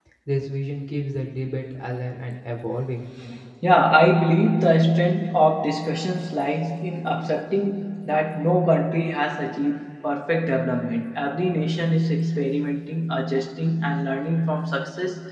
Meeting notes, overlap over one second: none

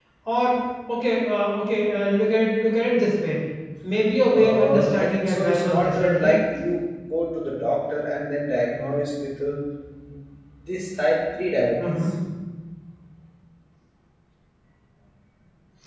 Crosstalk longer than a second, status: present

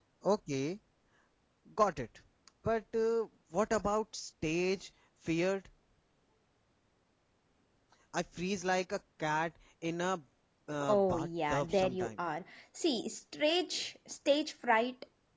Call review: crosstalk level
present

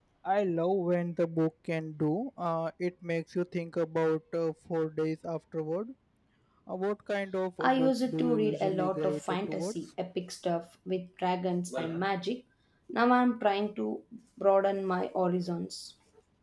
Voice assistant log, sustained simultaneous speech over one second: present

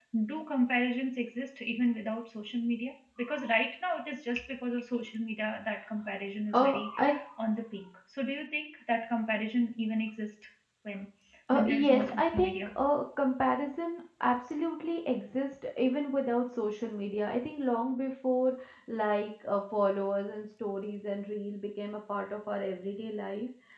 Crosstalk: present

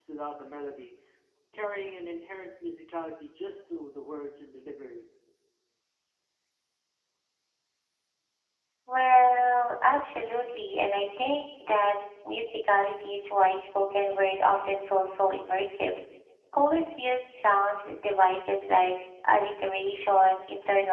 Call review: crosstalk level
none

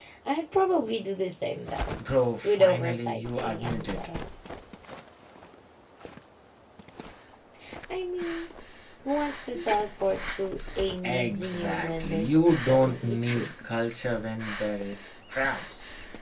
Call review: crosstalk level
present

